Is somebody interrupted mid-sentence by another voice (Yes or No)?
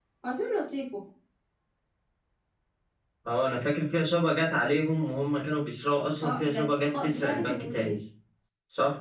Yes